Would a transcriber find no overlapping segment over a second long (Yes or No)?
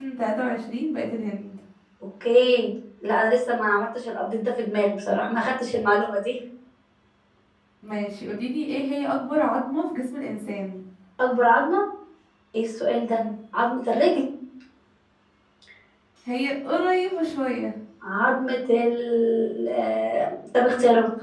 Yes